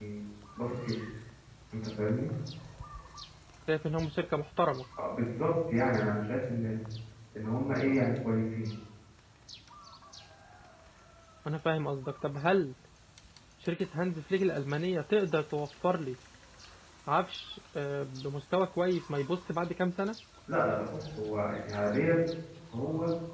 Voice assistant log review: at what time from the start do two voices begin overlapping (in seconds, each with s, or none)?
none